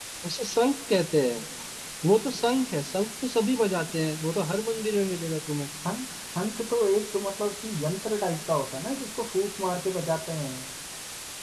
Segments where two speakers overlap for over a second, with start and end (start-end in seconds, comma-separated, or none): none